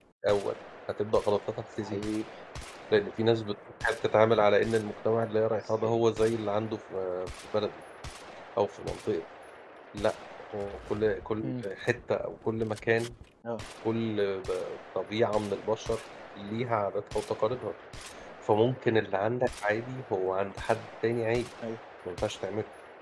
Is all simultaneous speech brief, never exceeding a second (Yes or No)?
Yes